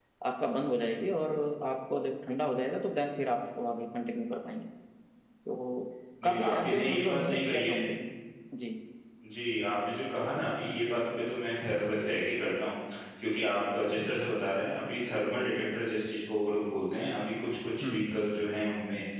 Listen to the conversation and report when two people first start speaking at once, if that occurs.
6 s

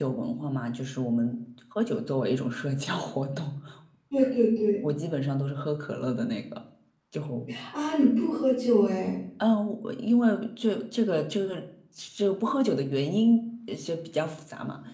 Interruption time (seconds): none

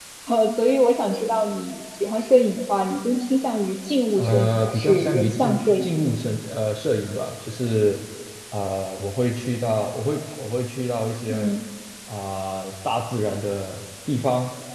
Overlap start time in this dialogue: 4 s

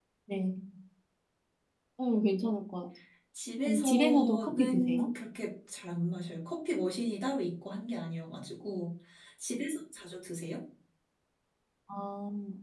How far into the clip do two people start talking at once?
4 s

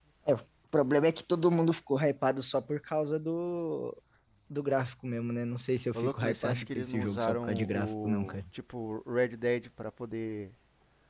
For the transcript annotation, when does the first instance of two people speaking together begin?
6 s

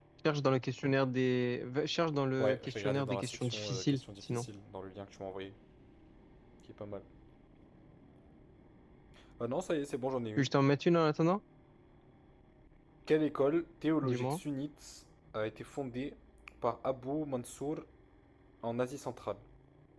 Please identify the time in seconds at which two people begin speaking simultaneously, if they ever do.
2 s

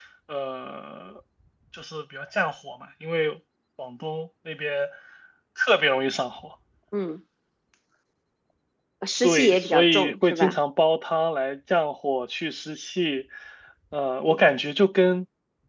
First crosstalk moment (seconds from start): 9 s

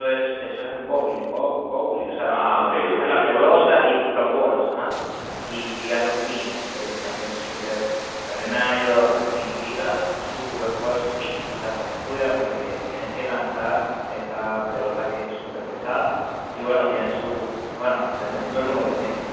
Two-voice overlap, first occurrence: 2 s

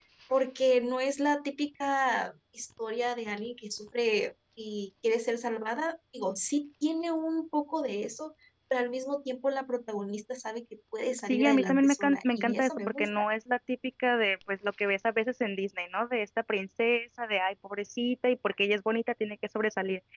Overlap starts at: 11 s

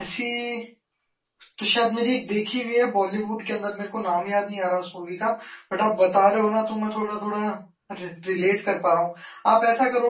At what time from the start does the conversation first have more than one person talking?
none

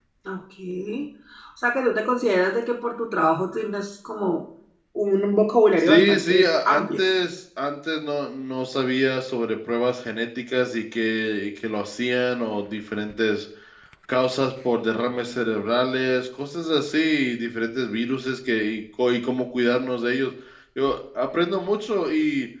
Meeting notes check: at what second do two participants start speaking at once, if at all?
6 s

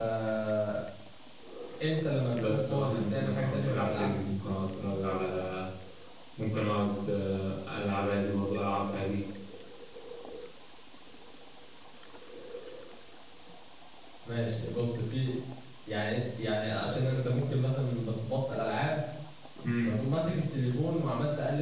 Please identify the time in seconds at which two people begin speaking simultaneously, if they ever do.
2 s

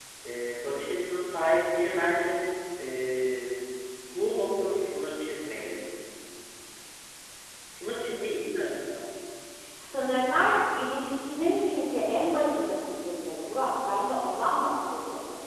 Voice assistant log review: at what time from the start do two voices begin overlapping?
none

